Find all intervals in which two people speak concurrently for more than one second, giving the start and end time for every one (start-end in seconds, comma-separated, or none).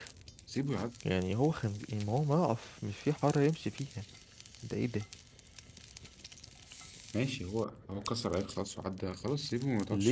none